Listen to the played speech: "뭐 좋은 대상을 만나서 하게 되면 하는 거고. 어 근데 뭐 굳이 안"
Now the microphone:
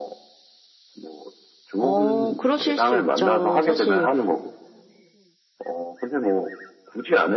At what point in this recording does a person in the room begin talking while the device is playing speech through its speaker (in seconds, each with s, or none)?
1.8 s